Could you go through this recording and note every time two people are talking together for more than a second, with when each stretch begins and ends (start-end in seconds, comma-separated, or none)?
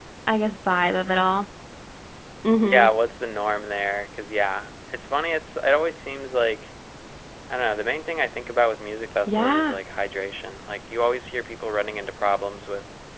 none